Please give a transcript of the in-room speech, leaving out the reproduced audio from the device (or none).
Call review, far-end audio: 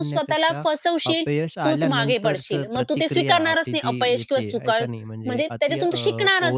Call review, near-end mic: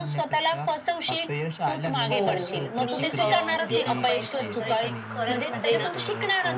हो, हो. मी अ, म्हणजे ना अपयशानंतर आहे ना खरंच म्हणजे ना